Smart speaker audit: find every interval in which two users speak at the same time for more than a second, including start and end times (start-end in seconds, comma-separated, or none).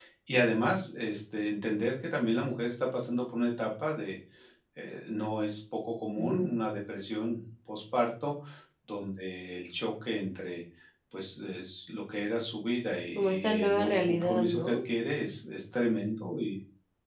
13.2-14.8